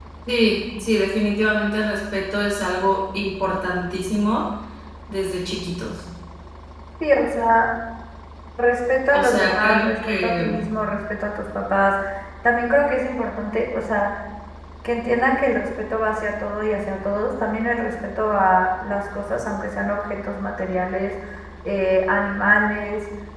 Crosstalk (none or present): present